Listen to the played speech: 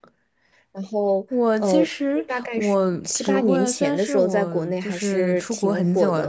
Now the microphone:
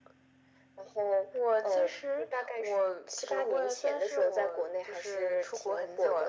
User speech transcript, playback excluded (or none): none